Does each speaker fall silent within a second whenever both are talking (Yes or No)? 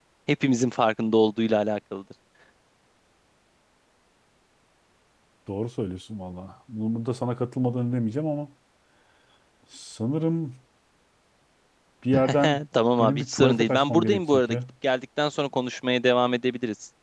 No